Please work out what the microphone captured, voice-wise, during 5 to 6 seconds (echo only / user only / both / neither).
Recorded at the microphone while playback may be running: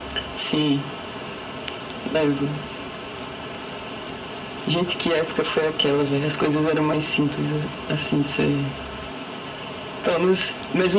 echo only